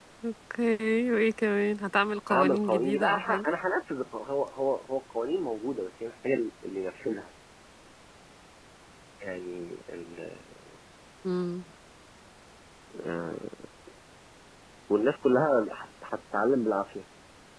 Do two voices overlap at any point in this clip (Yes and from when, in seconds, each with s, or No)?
Yes, from 2.3 s